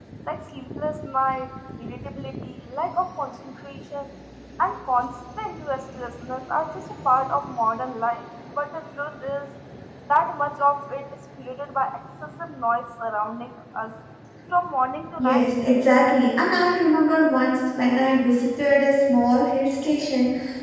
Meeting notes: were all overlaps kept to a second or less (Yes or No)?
Yes